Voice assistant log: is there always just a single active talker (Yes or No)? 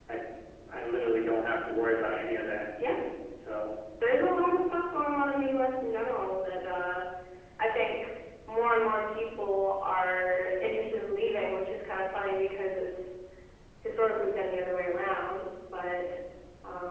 Yes